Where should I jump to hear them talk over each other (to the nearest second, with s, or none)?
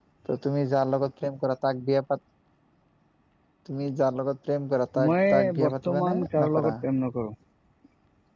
5 s